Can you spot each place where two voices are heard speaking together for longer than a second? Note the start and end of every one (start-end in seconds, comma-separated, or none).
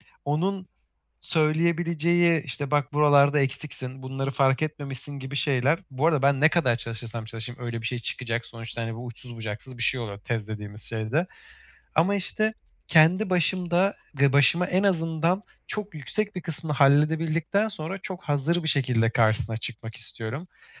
none